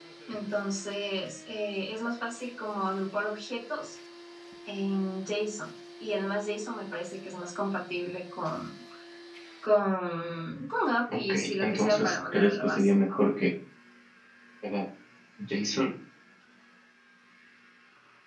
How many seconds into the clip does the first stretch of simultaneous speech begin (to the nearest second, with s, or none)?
11 s